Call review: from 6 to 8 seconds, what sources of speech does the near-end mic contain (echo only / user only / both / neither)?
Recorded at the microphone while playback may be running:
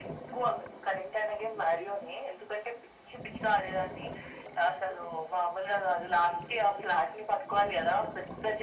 echo only